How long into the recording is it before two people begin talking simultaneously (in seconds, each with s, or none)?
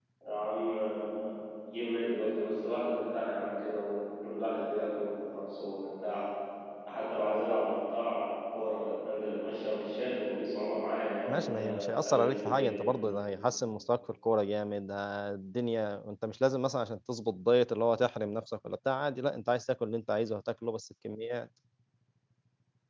11.3 s